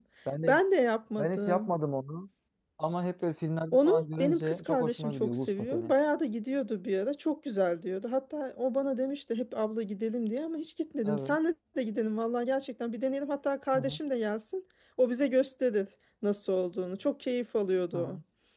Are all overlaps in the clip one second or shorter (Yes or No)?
No